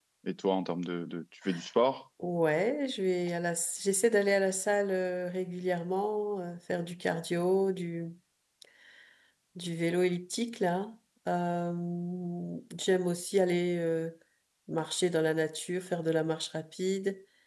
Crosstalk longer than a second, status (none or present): none